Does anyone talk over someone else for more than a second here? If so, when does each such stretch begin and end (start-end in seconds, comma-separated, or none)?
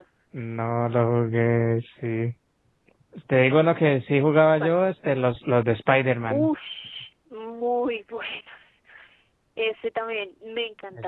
none